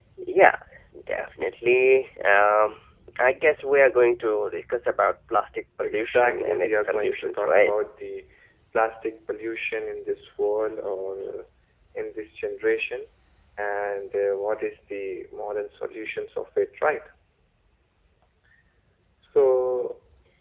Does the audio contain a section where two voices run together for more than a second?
Yes, from 5.8 s

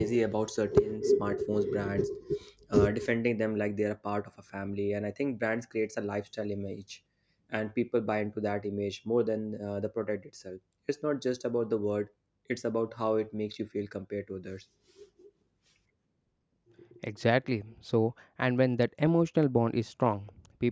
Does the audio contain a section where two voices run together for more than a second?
No

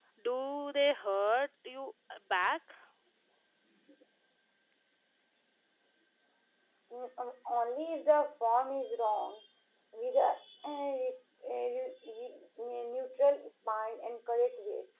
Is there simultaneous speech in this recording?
No

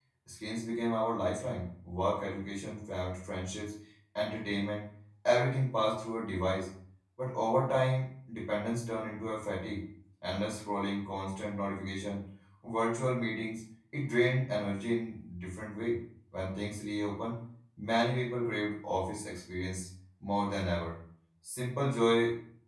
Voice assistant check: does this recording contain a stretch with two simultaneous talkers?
No

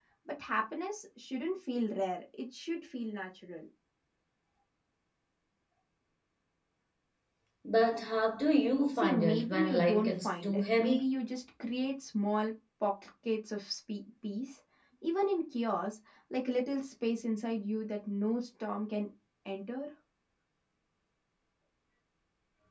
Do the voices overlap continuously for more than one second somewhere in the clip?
Yes, from 8.9 s

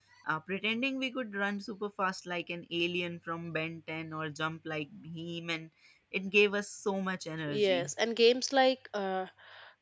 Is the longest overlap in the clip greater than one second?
No

